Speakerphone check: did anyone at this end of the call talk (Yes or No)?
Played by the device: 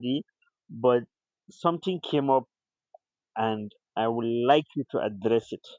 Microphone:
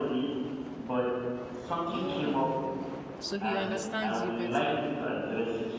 Yes